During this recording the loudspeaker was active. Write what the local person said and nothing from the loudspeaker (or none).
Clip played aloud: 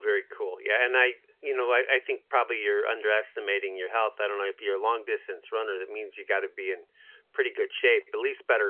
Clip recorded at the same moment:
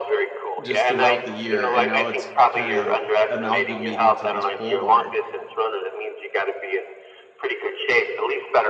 just throughout the year, and now it's kind of amalgamating to this pole barn,